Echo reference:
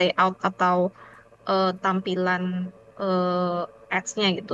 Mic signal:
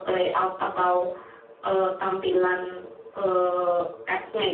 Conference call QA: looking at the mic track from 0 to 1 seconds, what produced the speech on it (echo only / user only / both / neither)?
echo only